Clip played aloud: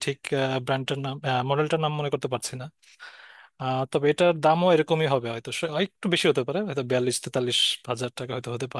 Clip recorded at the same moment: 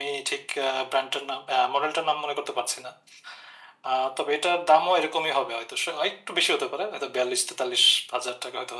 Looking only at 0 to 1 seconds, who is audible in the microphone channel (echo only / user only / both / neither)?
echo only